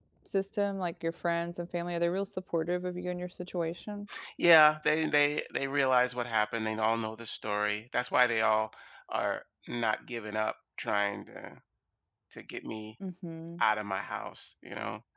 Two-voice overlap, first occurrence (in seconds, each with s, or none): none